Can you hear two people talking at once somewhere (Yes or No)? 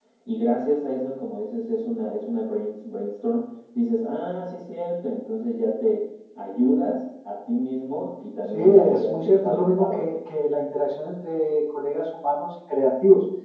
Yes